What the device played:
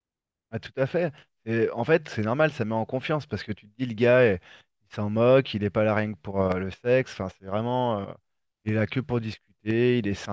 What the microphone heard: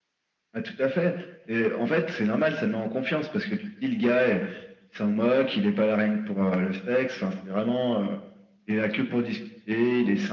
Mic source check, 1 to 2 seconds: echo only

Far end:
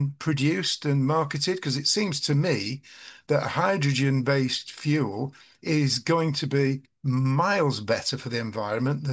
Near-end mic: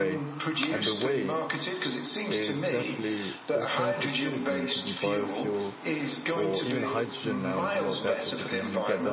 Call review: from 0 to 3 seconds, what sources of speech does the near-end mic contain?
both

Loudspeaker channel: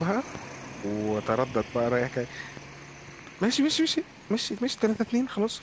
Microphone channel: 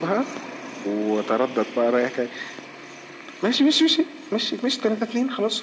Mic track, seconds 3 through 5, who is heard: echo only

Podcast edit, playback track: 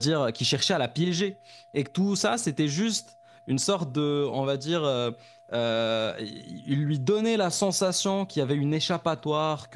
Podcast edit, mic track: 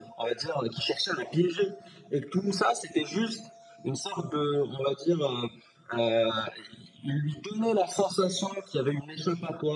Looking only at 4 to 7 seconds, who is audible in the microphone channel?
echo only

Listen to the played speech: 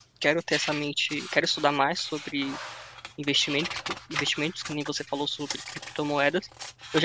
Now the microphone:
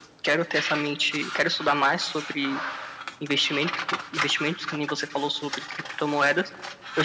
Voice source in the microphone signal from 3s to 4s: echo only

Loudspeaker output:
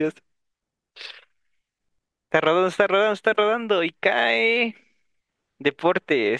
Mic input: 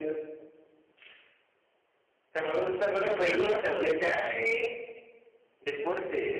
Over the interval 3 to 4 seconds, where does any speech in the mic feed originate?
both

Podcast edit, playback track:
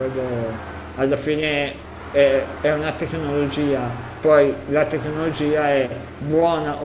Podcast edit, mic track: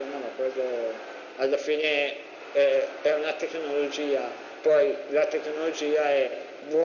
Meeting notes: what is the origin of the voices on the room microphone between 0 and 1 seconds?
echo only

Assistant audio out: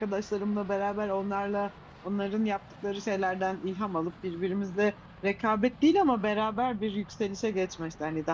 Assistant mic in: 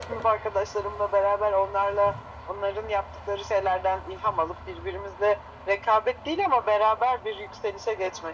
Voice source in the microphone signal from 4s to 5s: echo only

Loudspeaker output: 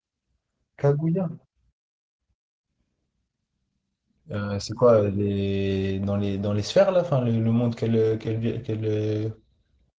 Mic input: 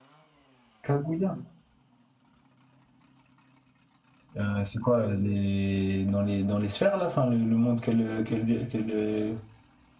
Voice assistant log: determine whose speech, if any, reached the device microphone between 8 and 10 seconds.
echo only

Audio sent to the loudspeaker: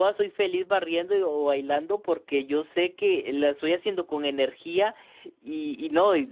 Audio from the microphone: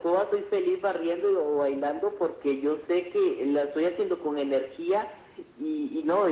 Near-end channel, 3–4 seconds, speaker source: echo only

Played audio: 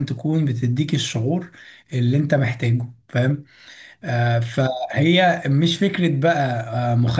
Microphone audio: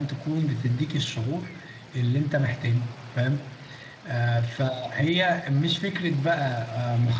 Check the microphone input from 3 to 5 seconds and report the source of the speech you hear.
echo only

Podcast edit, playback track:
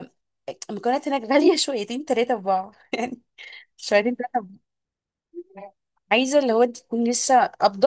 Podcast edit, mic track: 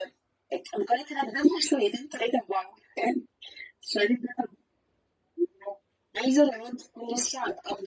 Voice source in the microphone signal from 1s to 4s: echo only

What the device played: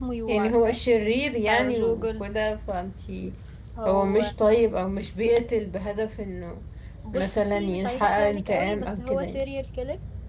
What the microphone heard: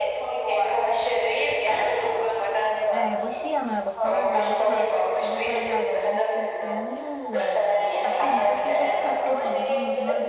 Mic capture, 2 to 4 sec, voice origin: both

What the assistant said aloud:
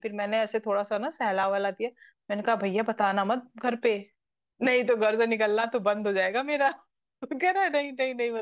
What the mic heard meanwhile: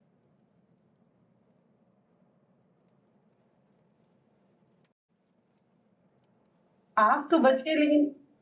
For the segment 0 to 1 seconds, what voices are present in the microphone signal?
neither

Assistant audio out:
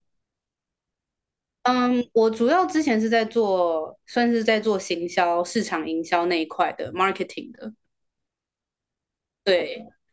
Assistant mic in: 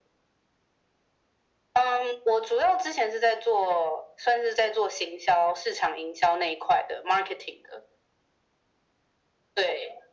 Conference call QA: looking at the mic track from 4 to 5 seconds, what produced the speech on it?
echo only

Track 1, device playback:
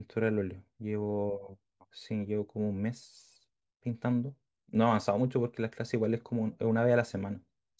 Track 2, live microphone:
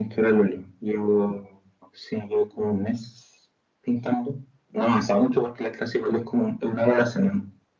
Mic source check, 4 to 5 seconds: echo only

